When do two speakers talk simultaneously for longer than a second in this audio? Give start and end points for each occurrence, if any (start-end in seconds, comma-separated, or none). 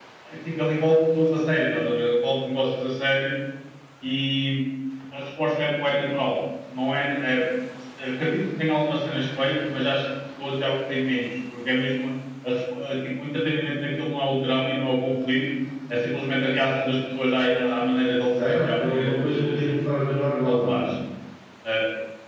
18.4-19.7